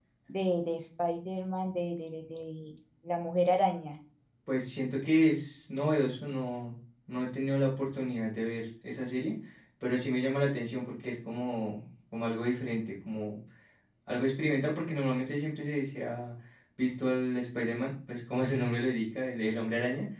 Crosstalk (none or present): none